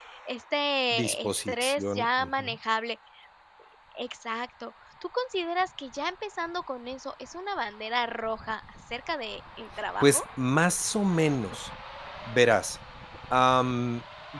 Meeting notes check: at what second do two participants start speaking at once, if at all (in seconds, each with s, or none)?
0.9 s